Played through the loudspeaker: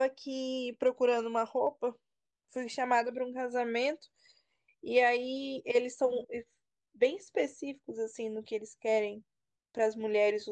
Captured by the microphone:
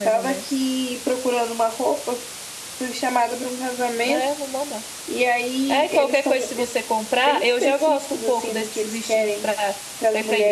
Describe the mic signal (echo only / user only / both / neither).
both